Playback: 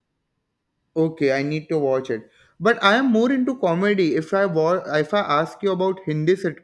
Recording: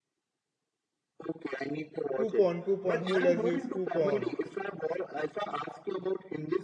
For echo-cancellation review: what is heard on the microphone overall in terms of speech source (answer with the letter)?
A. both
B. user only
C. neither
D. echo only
A